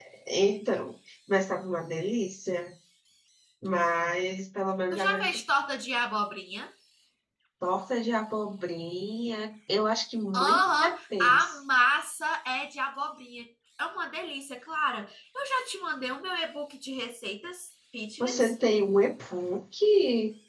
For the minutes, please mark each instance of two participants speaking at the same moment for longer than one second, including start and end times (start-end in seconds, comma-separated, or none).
10.4-11.6